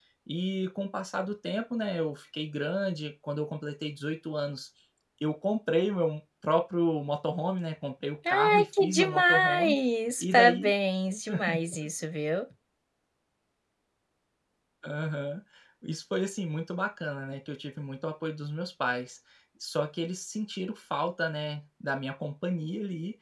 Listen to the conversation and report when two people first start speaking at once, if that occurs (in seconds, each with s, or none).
8.3 s